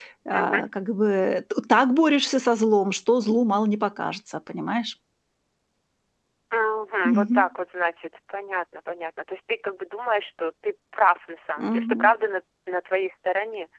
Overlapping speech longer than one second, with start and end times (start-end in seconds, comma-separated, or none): none